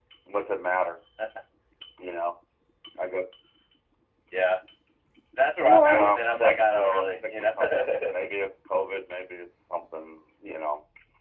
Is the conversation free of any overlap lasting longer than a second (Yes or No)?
No